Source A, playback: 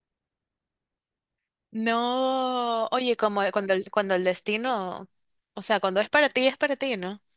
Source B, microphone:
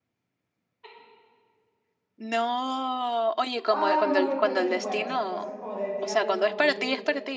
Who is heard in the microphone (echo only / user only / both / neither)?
both